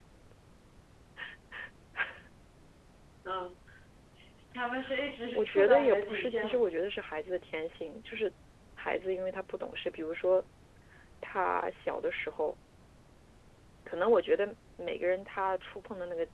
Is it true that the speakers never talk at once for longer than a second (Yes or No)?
No